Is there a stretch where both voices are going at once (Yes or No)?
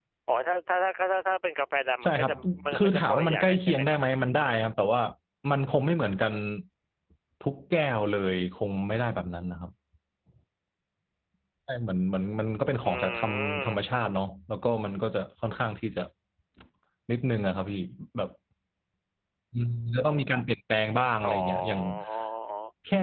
Yes